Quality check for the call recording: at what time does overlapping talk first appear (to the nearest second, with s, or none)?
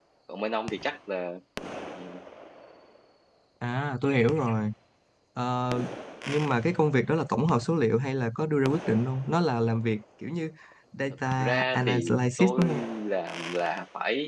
11 s